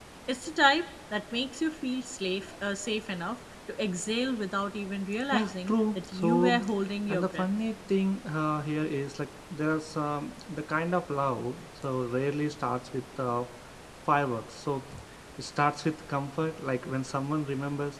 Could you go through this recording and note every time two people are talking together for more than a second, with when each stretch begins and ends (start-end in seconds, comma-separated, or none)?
5.3-6.6